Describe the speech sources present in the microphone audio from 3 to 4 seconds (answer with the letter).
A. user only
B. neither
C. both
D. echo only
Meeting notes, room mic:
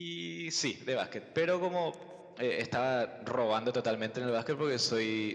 D